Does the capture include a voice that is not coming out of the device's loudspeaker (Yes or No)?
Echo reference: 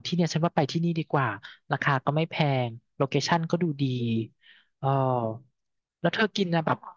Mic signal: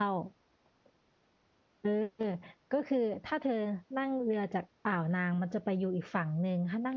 Yes